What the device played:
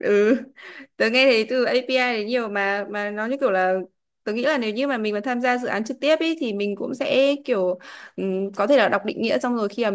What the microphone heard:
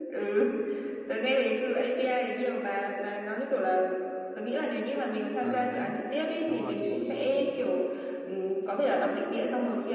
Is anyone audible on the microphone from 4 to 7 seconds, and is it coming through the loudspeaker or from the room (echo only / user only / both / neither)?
both